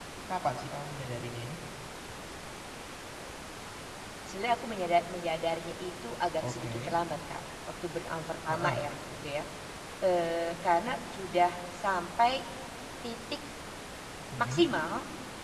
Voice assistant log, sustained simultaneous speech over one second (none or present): none